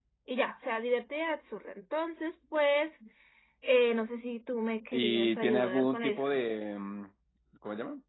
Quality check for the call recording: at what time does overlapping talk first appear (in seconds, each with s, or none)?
4.9 s